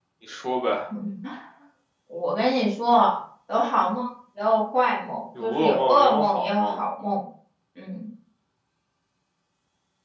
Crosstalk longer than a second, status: present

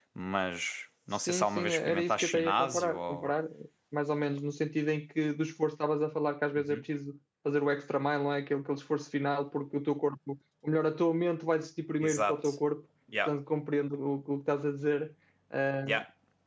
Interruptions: present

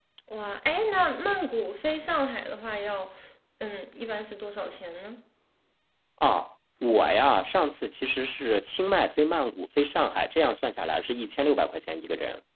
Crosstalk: none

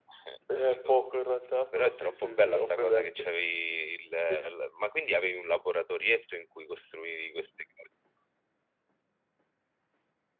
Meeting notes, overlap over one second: present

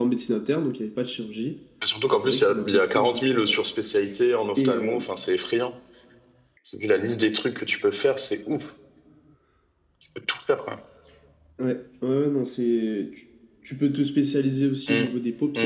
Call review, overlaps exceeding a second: present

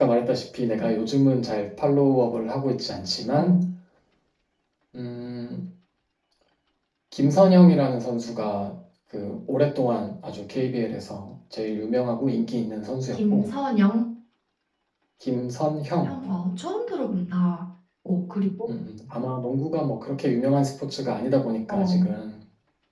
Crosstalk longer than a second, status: none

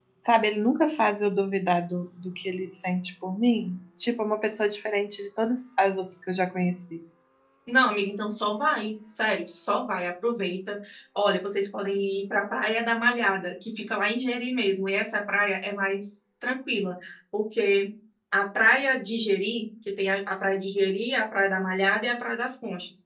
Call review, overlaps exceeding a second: none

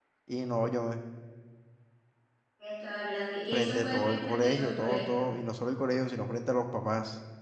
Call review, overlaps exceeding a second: present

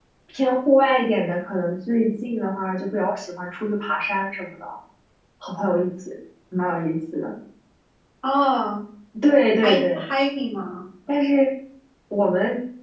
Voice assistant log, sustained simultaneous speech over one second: none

